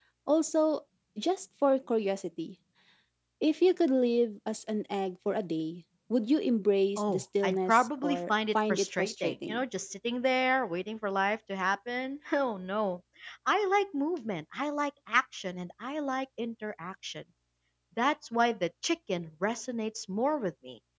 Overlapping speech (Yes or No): Yes